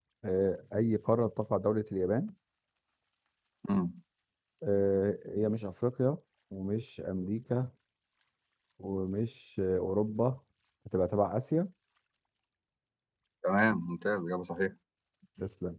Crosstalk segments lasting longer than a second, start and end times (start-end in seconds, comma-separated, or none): none